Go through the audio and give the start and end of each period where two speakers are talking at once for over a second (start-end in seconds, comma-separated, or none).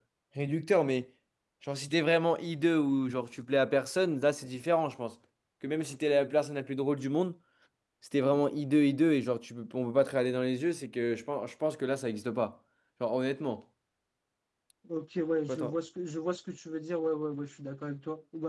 none